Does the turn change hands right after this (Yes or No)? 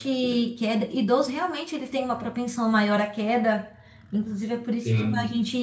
No